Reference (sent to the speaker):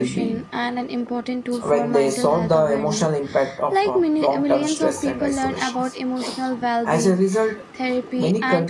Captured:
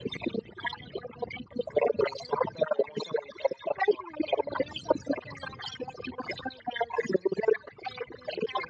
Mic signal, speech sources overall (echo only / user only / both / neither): echo only